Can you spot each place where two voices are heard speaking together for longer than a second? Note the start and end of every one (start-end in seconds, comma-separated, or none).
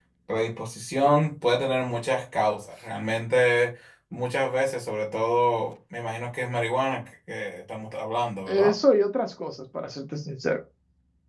none